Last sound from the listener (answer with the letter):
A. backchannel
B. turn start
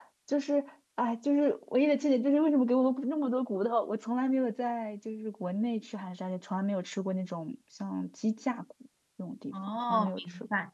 B